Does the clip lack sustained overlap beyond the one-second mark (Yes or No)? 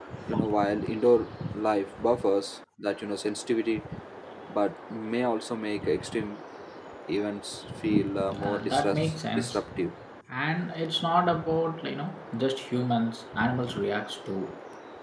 No